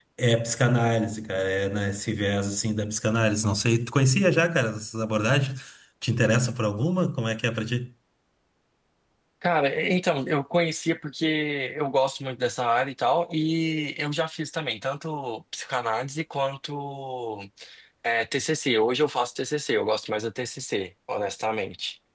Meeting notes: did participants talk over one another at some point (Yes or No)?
No